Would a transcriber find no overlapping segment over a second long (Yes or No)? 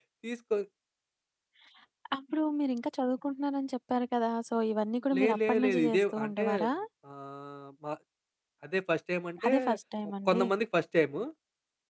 No